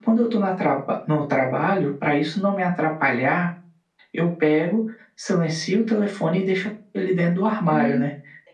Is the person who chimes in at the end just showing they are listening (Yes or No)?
No